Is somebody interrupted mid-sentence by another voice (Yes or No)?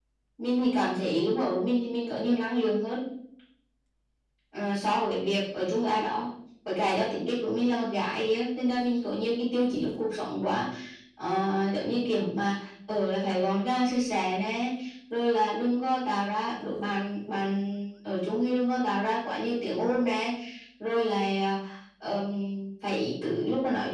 No